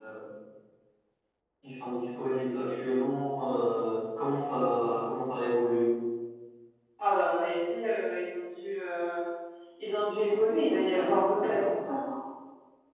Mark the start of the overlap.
none

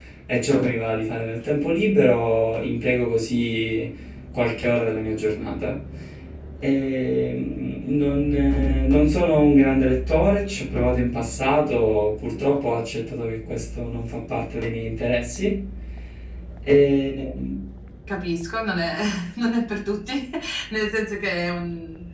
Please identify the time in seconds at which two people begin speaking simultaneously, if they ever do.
none

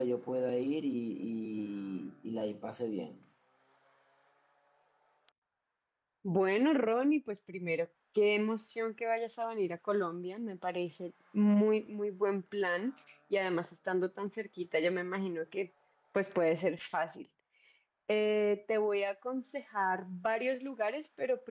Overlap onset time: none

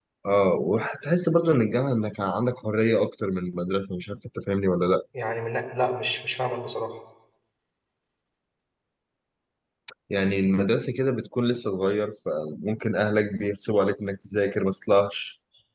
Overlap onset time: none

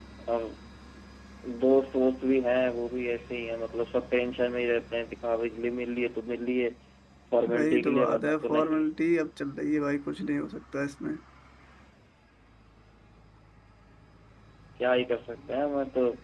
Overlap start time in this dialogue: 7.5 s

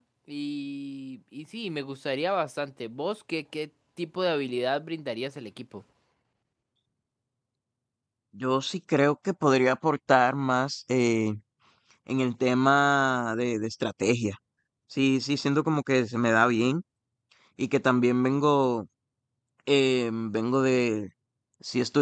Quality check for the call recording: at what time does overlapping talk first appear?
none

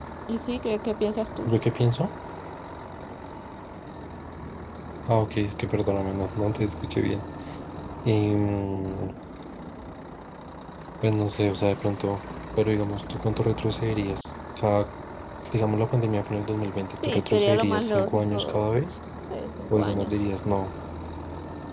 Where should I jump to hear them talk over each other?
17.0 s

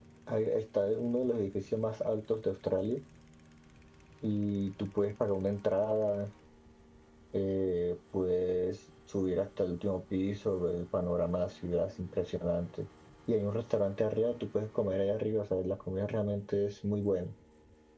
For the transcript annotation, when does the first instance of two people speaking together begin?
none

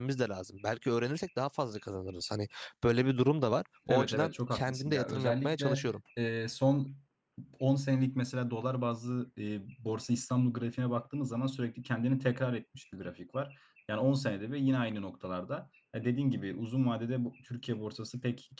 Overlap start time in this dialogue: 3.9 s

